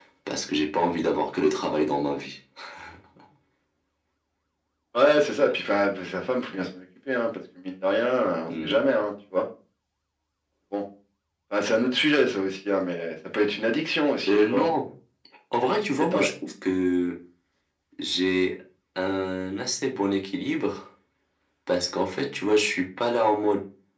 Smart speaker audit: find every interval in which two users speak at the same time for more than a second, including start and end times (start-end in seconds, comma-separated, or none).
none